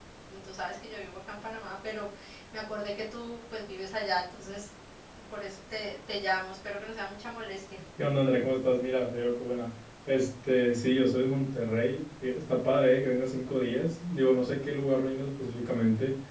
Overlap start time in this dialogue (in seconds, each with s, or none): none